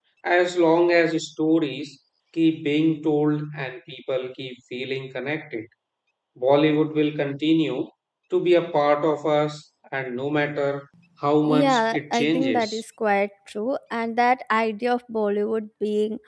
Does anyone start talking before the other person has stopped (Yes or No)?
Yes